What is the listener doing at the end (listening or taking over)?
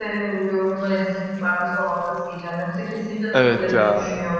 listening